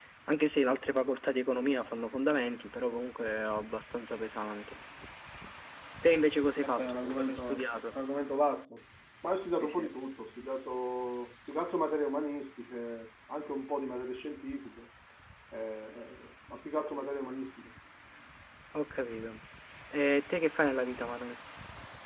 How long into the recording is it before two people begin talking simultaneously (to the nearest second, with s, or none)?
7 s